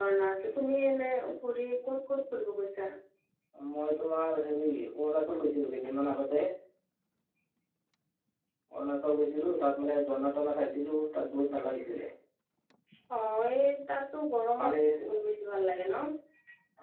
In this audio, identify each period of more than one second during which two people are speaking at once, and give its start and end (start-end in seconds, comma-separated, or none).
none